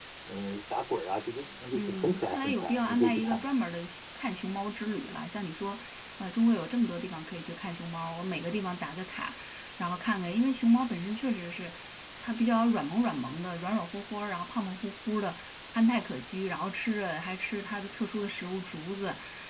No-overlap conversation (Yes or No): No